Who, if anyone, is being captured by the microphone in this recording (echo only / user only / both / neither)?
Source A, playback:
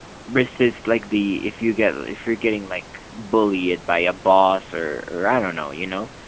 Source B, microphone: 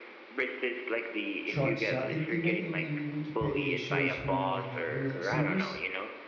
both